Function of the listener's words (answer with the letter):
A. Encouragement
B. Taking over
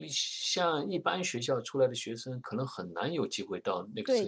B